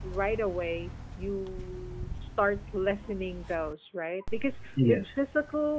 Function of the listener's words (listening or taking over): listening